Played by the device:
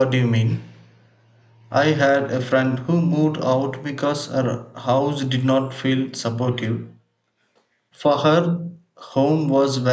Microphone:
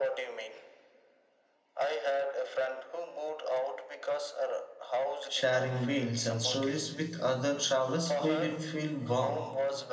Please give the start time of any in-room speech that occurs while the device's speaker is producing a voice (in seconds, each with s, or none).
5.2 s